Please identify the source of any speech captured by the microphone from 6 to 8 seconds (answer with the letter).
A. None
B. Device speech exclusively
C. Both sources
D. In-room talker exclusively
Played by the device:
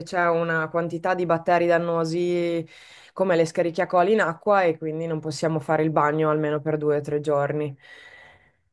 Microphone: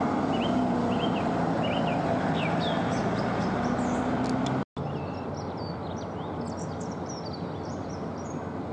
A